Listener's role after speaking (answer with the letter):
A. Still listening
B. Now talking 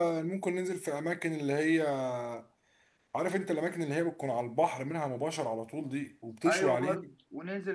B